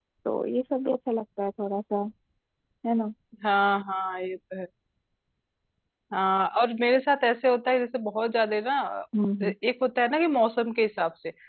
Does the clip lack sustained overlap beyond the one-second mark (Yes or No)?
Yes